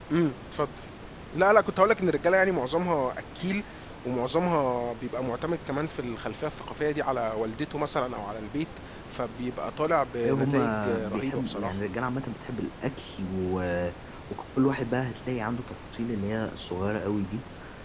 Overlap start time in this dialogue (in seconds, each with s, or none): 10.2 s